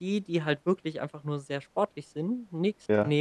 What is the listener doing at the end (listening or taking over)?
listening